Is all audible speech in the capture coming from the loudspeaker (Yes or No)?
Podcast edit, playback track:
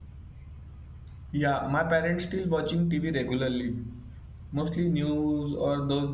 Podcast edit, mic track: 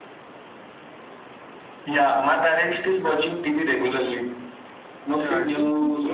No